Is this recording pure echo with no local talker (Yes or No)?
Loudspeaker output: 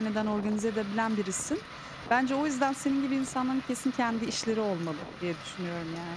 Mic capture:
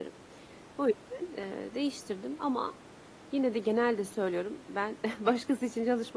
No